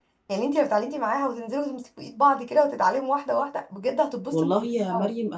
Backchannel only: No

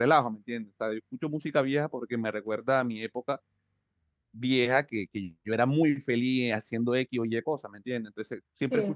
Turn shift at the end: No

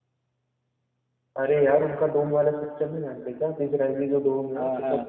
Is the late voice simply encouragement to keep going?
Yes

